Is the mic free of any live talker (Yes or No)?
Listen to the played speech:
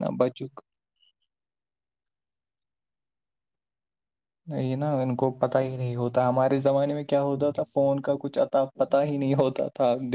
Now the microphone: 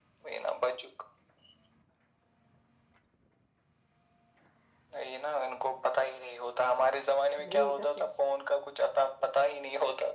No